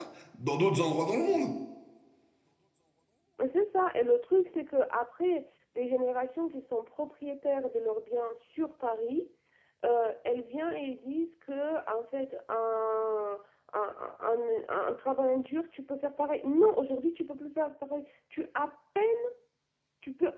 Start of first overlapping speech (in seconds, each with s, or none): none